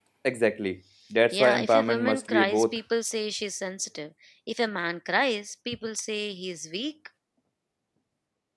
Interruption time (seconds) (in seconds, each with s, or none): 1.3 s